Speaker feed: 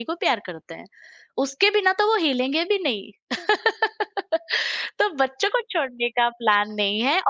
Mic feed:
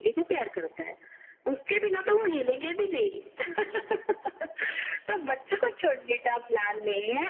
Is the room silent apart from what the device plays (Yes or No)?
Yes